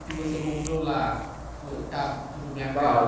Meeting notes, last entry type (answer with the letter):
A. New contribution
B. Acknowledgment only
A